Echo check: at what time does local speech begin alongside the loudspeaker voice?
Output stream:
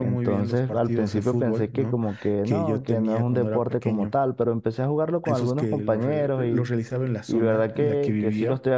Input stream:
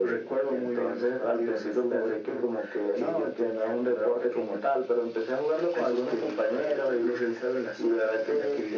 none

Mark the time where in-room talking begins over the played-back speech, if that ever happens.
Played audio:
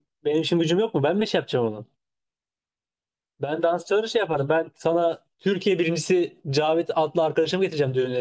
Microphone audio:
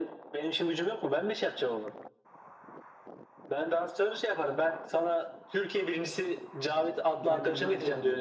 7.2 s

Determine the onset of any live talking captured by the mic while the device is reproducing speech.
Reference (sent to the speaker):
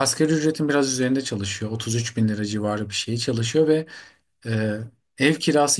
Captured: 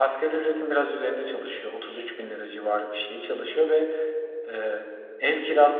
none

